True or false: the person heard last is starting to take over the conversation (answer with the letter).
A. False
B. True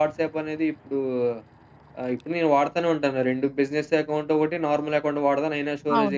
A